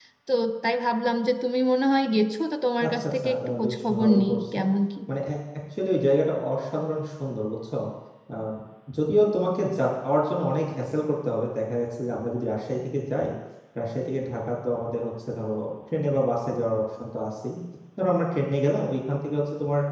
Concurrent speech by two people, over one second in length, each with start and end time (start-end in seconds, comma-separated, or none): 2.8-4.6